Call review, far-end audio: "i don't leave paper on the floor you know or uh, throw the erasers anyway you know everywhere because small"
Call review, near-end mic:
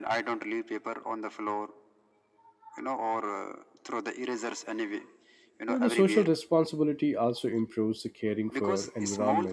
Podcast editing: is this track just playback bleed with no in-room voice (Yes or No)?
No